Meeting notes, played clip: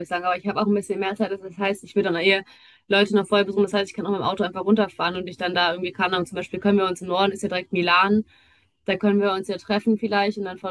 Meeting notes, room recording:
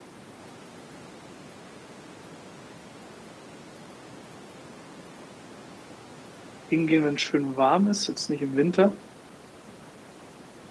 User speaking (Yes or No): Yes